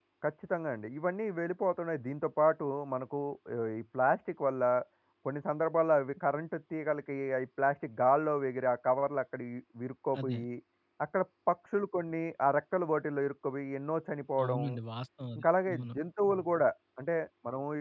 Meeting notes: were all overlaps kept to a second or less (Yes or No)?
Yes